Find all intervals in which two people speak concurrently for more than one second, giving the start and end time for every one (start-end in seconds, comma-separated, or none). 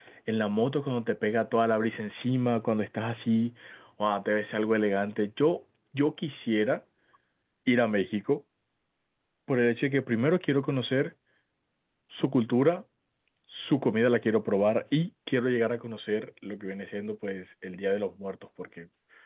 none